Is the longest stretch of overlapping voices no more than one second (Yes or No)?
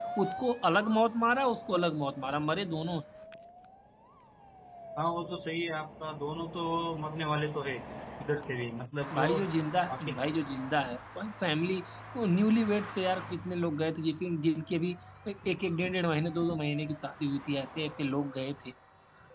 Yes